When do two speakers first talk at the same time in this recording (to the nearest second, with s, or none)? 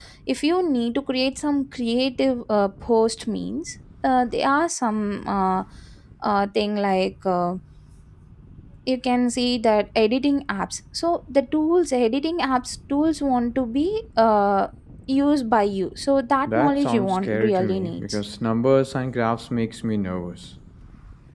16 s